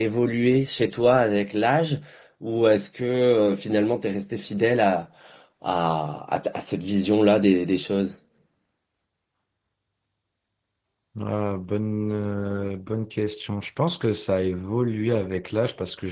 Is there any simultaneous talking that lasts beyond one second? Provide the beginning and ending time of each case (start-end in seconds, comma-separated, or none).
none